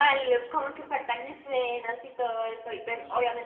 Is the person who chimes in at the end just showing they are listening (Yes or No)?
Yes